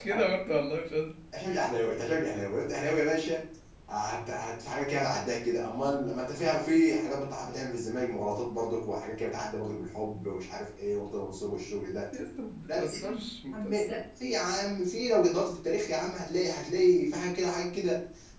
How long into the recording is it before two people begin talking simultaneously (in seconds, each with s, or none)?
12.7 s